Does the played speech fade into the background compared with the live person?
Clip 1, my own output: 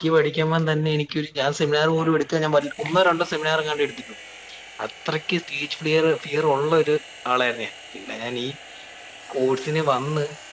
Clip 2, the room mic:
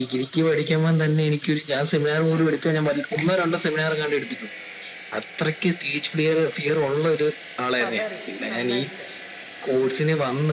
No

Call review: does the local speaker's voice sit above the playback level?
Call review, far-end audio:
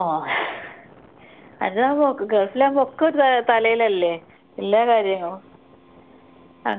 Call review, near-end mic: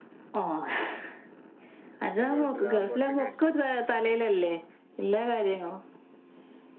No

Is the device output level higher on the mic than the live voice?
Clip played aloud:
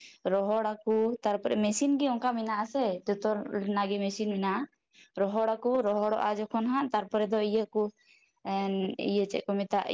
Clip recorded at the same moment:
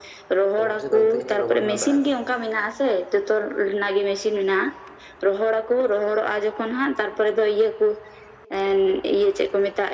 Yes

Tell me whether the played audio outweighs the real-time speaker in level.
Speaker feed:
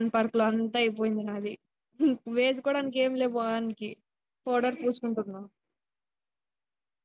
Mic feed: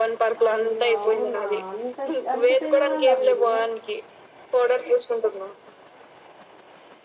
Yes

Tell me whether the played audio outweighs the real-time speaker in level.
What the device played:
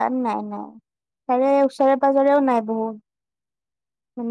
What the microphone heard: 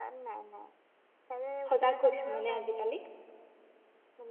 No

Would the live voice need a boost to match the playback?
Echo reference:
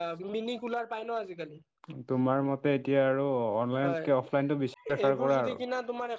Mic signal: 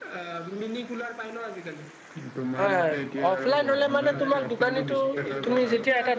No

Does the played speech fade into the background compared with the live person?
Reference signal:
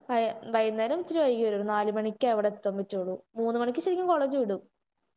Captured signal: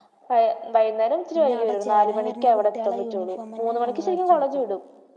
No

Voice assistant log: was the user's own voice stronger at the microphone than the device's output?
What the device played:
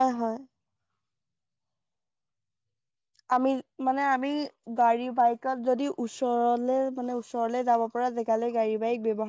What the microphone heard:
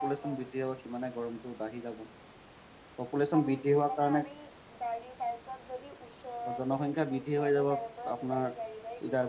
Yes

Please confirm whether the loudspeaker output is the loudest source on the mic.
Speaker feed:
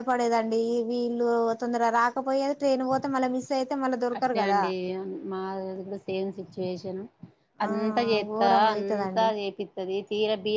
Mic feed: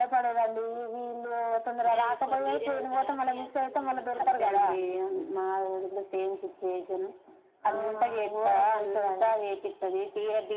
Yes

